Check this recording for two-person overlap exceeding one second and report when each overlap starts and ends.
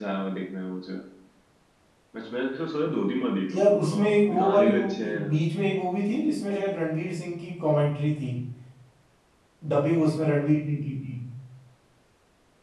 3.5-5.2

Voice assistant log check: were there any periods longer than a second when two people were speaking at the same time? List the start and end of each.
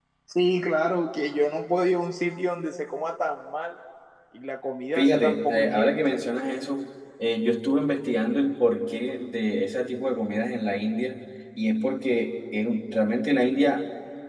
5.0-6.2

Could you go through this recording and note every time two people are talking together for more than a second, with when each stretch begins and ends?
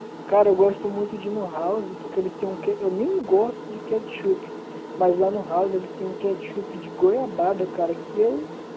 none

